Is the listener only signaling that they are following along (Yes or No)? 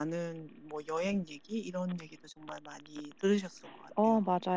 No